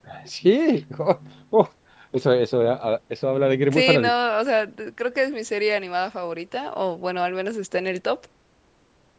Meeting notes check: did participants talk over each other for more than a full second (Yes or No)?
No